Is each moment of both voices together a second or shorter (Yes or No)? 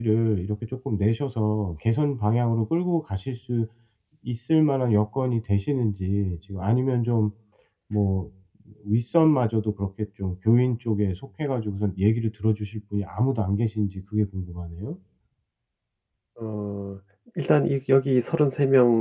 Yes